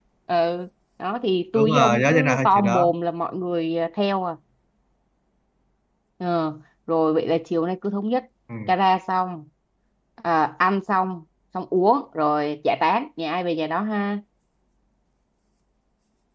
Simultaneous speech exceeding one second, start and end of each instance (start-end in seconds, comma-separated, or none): 1.6-2.9